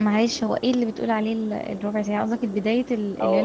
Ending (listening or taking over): taking over